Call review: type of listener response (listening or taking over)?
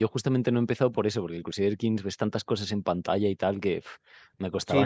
taking over